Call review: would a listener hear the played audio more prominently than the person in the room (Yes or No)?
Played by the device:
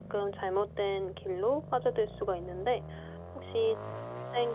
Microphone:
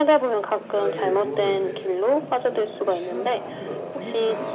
Yes